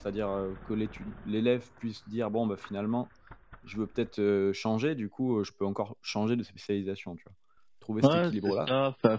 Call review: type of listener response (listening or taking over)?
taking over